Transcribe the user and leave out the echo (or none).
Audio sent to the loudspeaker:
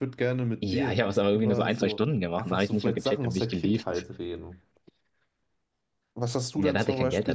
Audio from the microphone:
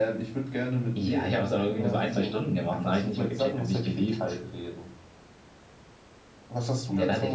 none